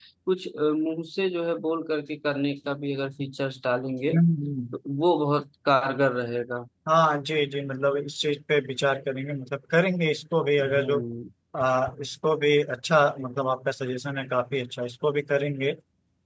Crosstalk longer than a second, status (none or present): none